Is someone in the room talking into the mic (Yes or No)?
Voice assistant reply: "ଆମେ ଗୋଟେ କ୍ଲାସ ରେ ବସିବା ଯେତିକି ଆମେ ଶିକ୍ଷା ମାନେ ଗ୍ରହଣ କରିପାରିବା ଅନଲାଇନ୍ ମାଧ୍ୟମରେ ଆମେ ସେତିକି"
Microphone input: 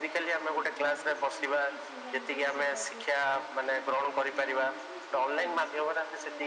Yes